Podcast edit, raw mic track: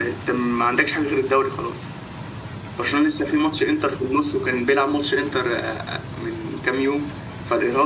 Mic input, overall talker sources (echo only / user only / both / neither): echo only